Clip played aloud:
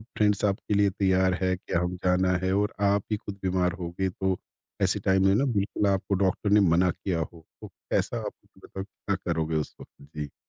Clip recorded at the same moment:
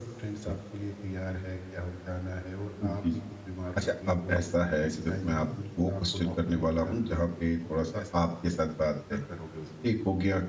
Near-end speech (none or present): present